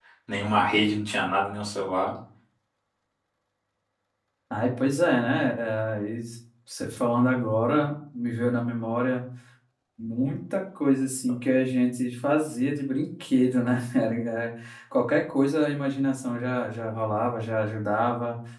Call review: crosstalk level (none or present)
none